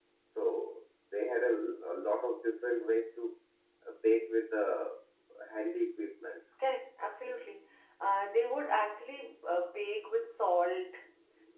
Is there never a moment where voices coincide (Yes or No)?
Yes